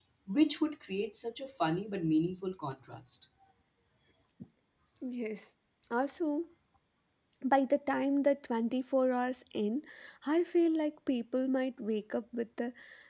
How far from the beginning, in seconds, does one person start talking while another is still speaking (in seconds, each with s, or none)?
none